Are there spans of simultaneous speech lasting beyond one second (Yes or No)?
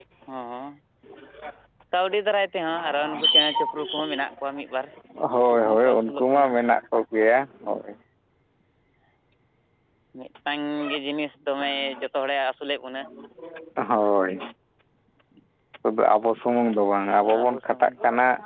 Yes